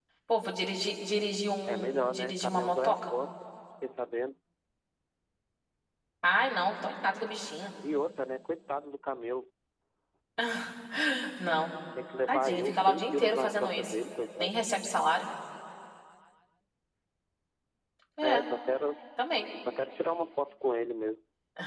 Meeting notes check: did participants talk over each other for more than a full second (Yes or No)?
Yes